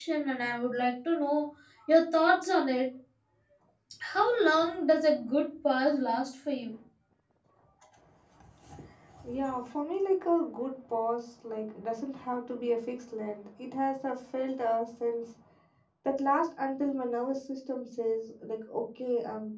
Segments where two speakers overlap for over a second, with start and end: none

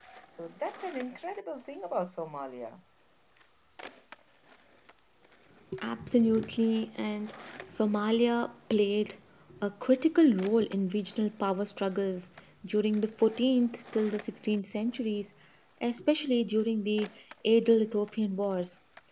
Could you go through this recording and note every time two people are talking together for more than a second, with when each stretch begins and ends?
none

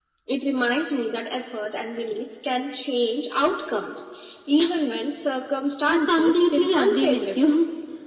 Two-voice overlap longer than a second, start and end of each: 5.9-7.5

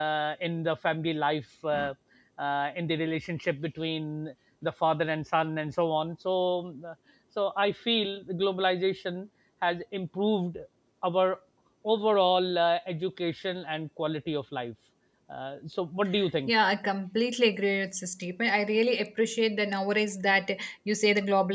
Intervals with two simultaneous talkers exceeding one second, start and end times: none

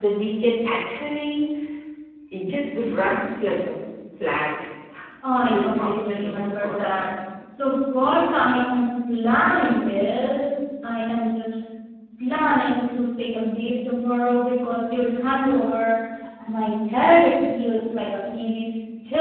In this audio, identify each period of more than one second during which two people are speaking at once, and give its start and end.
5.4-7.0

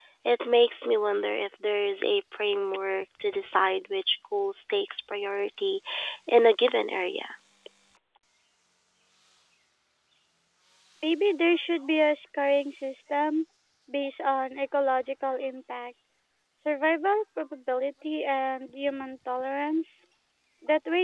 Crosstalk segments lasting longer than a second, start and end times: none

